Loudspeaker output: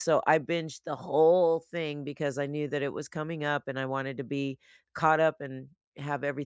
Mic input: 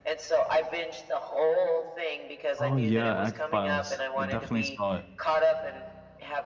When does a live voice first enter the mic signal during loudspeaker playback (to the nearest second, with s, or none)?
3 s